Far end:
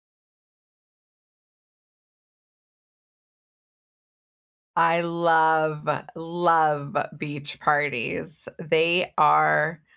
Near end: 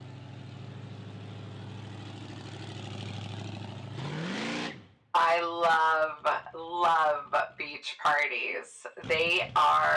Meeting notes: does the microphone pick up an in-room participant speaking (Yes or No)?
No